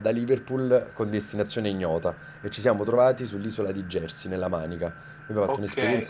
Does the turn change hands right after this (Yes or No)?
Yes